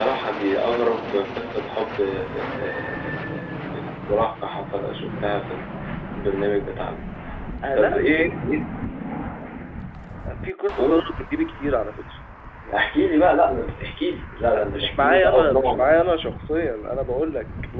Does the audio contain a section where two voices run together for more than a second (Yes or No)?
Yes